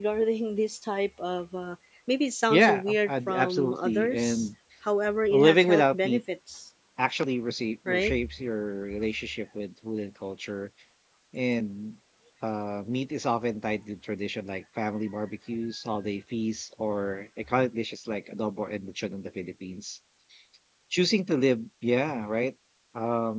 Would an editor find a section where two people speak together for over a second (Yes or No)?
Yes